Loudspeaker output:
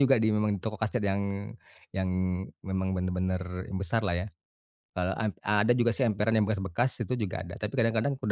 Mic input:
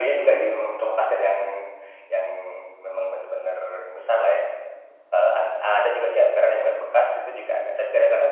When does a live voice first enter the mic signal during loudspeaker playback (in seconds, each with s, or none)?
none